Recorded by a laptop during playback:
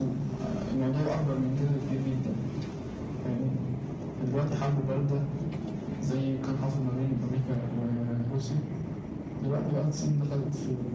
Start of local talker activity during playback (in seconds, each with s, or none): none